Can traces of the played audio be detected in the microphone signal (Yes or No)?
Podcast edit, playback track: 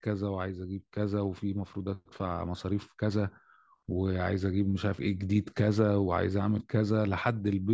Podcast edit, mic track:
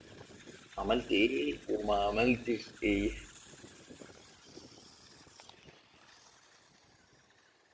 No